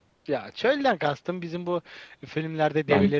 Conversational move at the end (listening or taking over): listening